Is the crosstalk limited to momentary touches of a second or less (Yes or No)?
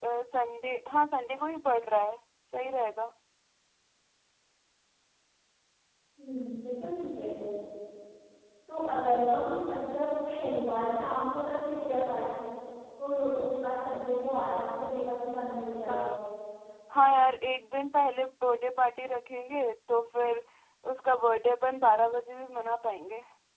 Yes